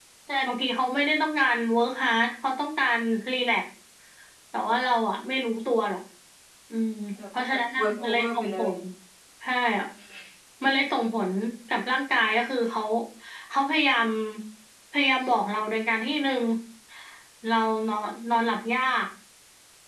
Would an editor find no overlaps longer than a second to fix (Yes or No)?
No